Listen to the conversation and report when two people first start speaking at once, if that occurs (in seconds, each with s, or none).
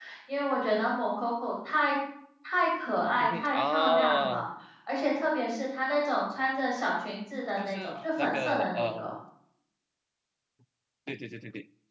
3.2 s